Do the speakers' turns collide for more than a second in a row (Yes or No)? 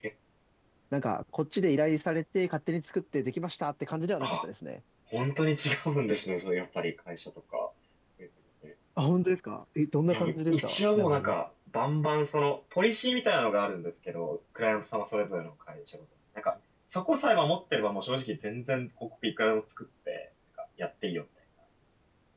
Yes